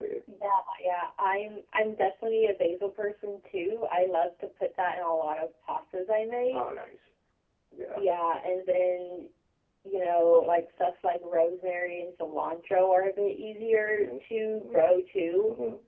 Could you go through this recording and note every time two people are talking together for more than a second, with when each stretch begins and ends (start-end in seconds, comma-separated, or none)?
none